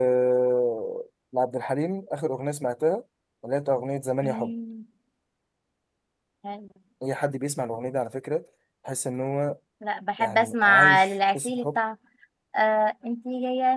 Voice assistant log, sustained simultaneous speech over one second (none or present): present